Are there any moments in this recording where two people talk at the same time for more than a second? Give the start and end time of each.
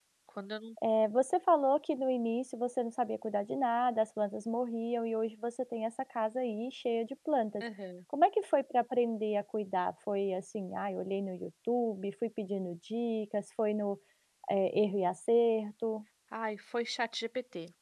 none

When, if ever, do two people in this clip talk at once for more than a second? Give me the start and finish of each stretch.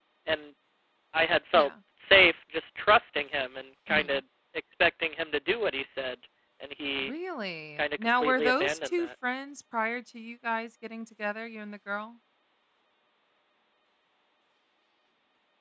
7.8-9.1

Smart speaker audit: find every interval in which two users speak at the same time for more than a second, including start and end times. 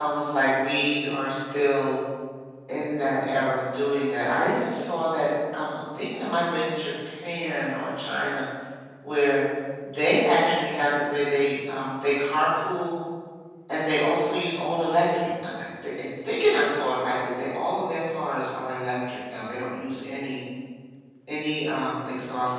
none

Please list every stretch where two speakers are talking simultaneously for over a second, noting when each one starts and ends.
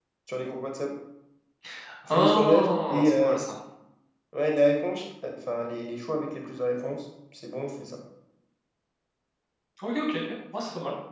2.1-3.4

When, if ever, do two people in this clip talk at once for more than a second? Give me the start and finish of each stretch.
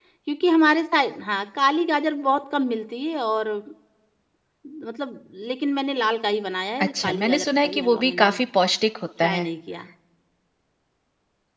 6.8-8.4

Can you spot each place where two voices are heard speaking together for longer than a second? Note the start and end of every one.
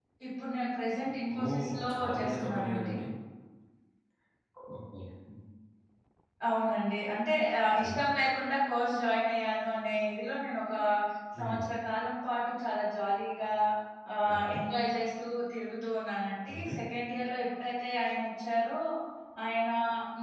1.5-3.0

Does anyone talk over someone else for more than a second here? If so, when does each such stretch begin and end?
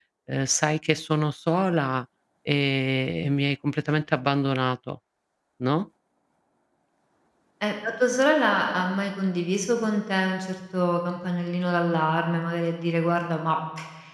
none

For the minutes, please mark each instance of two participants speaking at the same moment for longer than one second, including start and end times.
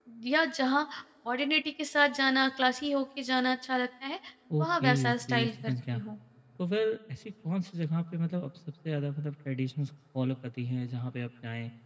4.6-6.0

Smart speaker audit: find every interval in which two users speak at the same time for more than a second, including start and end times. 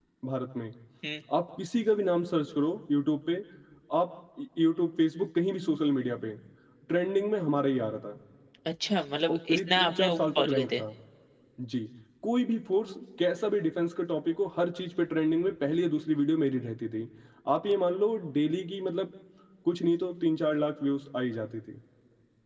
9.3-10.8

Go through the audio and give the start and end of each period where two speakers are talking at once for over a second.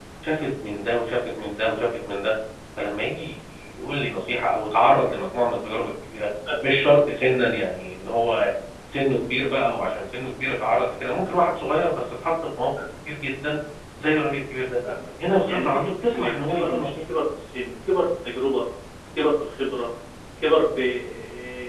15.5-16.9

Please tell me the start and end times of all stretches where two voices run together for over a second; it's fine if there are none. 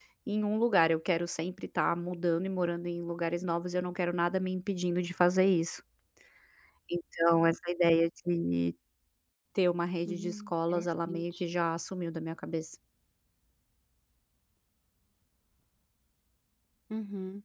10.0-11.4

